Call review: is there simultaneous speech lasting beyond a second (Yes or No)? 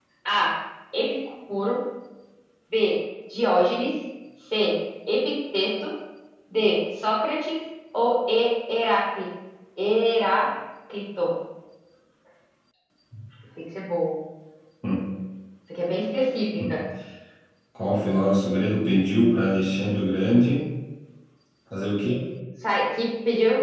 No